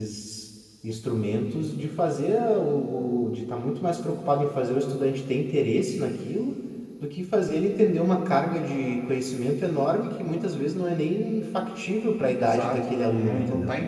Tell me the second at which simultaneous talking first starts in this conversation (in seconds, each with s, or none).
12.4 s